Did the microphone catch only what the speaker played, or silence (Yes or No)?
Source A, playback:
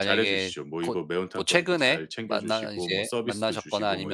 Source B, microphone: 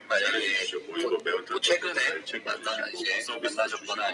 Yes